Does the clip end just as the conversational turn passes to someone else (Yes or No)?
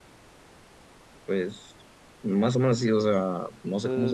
Yes